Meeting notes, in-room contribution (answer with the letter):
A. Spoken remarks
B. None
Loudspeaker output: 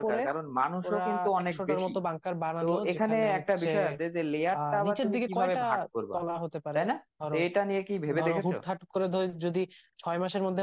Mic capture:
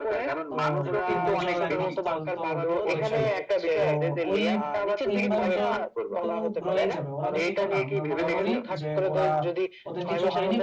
A